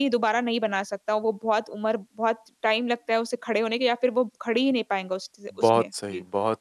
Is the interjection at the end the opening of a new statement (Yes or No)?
Yes